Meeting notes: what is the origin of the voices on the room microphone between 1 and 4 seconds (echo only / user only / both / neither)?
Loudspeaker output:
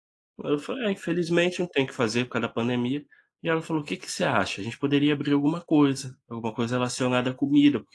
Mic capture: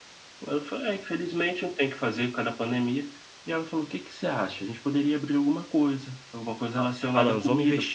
echo only